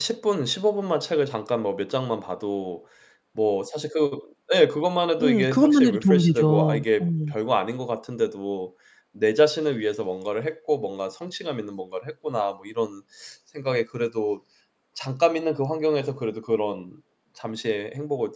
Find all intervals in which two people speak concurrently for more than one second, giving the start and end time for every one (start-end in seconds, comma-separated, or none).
5.2-7.0